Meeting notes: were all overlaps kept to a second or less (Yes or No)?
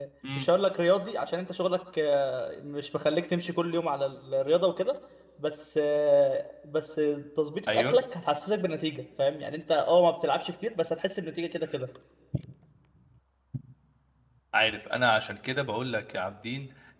Yes